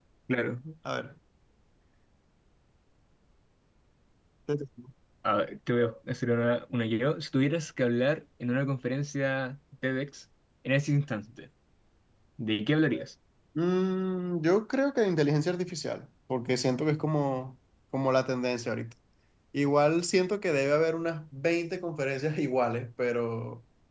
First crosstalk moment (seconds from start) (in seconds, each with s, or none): none